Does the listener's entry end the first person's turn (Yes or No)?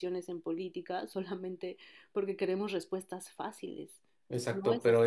Yes